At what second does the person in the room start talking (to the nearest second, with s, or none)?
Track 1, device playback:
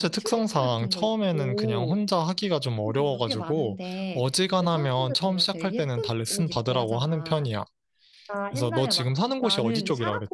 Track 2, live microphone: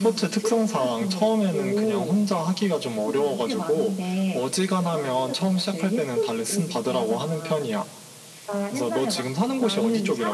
none